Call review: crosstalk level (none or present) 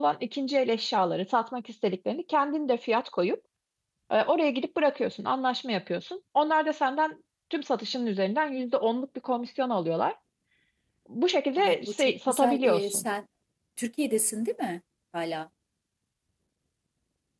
present